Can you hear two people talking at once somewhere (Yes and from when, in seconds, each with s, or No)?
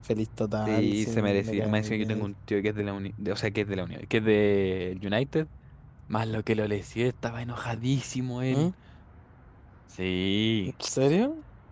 Yes, from 0.7 s